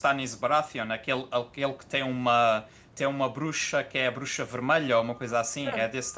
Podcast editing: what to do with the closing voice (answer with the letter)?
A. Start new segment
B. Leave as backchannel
A